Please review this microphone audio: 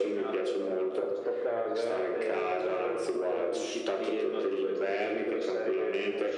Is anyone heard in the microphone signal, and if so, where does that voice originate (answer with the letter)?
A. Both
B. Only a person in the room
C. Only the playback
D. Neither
C